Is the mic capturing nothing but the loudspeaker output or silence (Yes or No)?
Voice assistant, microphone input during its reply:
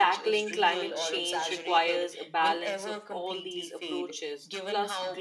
No